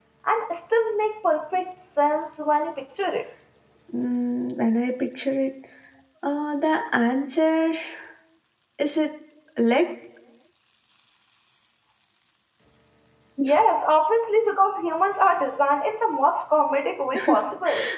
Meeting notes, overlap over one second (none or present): none